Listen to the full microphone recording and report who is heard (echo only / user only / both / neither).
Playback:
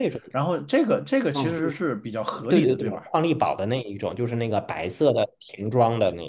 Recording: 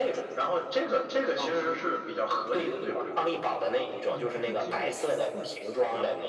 both